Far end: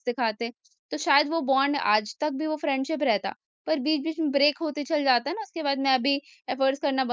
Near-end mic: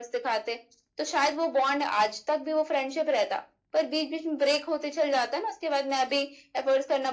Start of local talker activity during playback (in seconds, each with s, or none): none